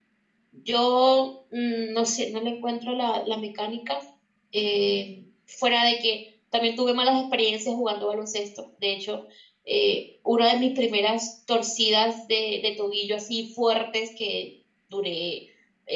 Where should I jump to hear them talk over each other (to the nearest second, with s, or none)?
none